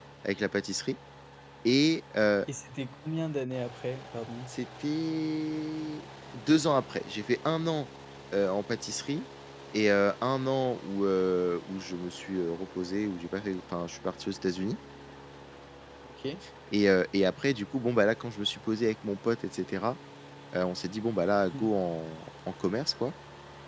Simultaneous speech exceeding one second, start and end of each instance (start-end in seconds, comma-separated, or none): none